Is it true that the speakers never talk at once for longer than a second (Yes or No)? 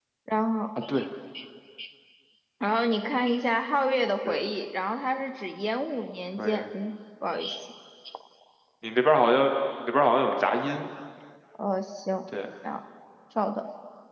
Yes